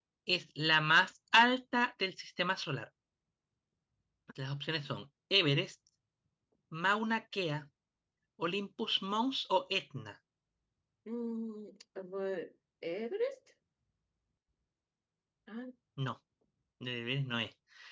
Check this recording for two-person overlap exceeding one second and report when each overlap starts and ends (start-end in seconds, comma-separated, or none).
none